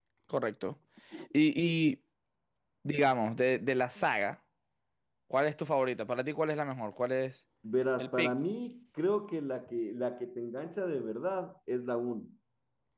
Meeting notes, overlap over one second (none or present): none